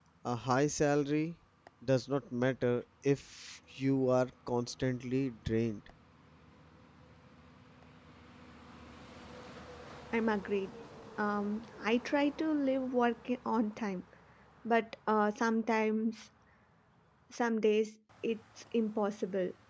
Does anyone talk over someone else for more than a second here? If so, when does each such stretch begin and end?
none

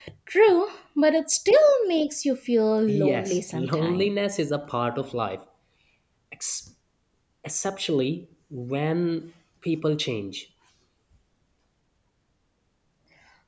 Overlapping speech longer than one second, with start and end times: 2.9-4.1

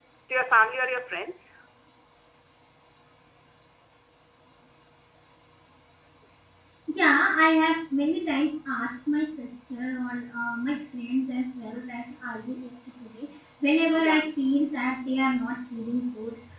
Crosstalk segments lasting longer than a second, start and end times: none

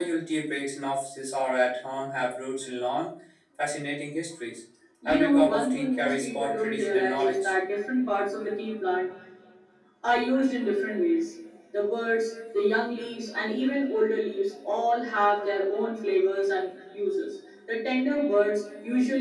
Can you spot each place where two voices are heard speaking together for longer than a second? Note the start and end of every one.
5.0-7.5

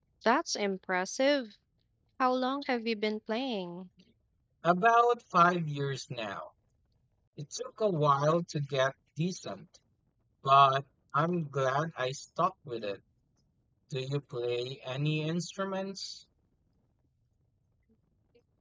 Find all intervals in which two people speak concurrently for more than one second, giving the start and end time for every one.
none

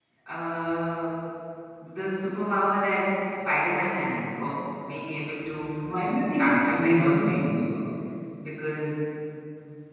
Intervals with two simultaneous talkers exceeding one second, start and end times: 6.3-7.7

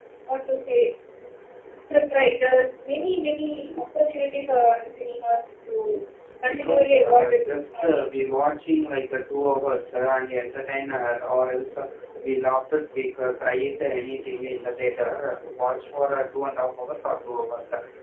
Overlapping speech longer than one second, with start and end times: 6.4-8.2

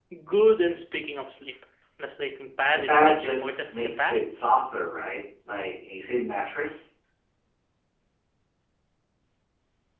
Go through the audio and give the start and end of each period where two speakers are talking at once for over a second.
2.9-4.2

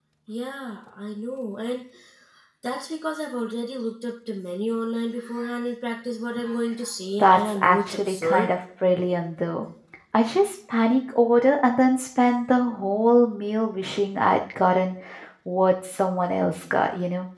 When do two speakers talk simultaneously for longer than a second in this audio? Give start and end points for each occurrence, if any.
7.2-8.5

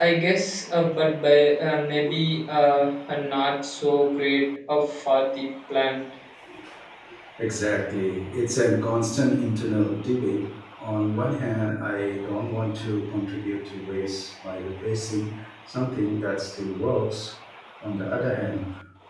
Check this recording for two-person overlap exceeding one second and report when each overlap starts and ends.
none

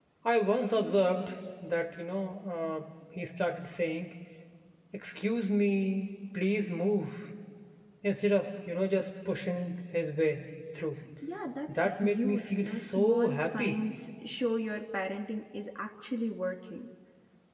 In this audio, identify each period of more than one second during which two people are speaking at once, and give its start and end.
11.7-13.8

